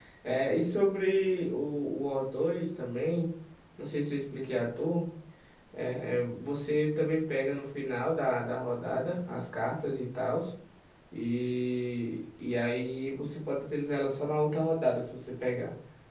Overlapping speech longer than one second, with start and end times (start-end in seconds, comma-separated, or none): none